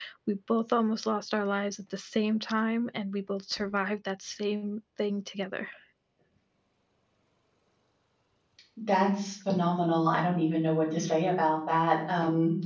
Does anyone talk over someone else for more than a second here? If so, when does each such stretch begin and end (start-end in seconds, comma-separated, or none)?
none